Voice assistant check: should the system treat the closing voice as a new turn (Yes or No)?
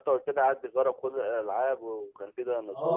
Yes